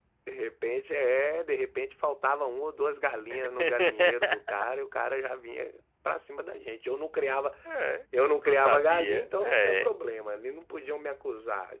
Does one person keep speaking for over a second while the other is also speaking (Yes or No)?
Yes